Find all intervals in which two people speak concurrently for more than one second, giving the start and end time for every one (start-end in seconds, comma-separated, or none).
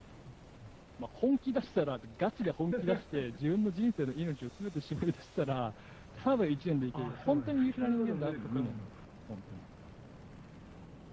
6.9-8.9